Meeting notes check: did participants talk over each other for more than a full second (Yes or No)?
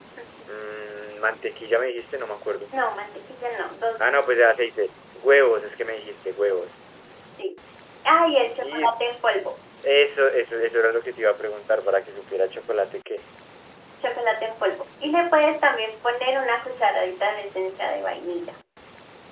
No